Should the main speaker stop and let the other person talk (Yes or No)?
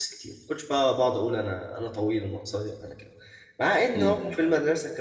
No